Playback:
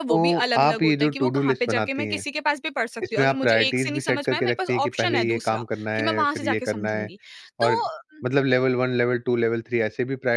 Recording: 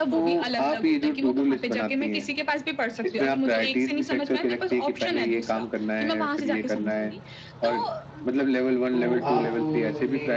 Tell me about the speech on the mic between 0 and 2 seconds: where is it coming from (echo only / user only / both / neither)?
echo only